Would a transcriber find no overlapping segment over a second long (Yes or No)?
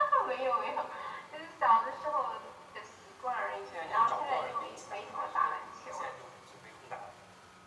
No